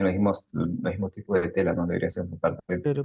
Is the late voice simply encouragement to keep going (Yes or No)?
No